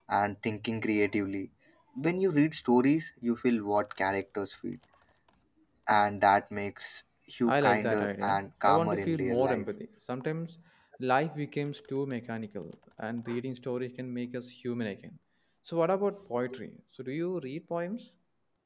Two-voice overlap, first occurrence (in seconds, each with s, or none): 7.5 s